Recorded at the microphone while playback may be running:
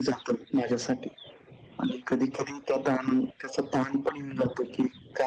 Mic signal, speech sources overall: echo only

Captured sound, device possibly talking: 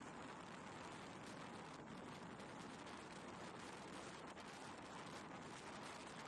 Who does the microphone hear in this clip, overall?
neither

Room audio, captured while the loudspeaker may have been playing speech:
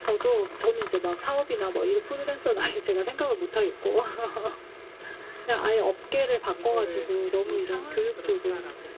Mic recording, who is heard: both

